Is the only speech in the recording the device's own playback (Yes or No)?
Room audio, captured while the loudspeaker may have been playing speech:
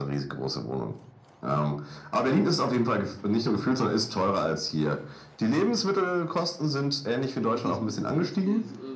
No